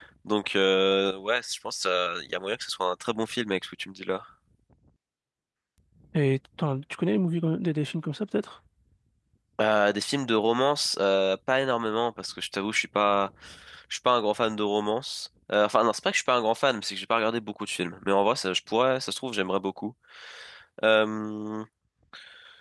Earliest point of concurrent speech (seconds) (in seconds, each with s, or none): none